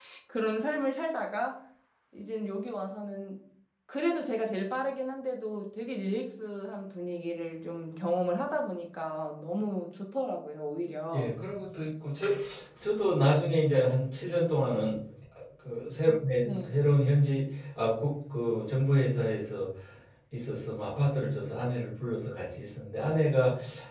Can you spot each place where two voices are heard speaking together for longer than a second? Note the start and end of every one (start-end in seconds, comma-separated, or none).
none